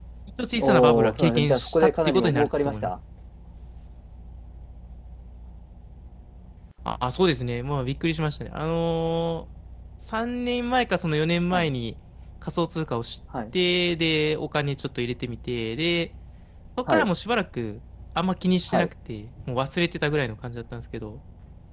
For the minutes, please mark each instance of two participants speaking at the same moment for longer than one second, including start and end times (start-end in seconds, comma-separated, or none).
0.6-2.9